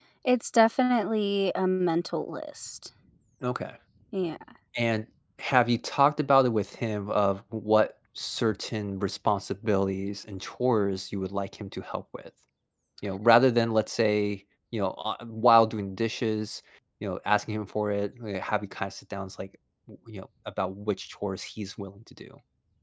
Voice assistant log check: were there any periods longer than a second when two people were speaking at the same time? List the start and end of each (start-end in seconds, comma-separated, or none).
none